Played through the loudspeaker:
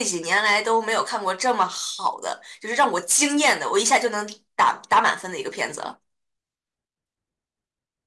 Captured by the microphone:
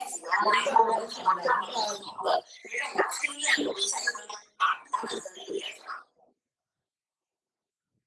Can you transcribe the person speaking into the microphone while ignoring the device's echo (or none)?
能赚很多钱的。要